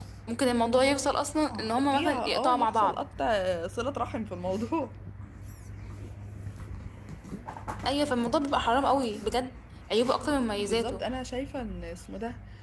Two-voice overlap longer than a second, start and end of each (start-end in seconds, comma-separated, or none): 1.8-3.0